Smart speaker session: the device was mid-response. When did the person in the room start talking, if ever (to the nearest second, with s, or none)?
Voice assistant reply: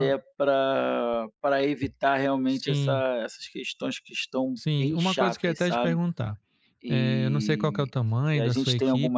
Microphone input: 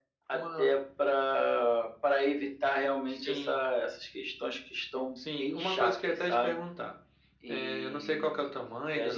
none